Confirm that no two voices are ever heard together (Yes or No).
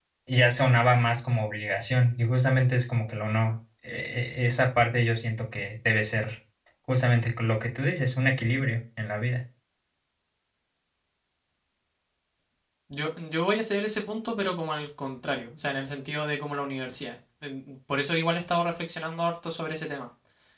Yes